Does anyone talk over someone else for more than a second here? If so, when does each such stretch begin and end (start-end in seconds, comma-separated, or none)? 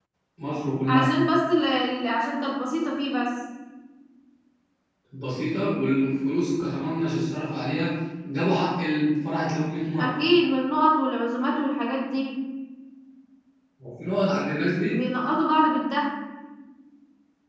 none